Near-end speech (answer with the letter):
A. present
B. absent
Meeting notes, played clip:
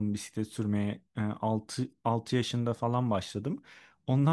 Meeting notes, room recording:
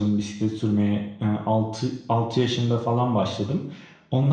B